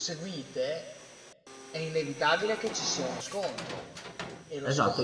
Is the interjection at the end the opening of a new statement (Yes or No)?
Yes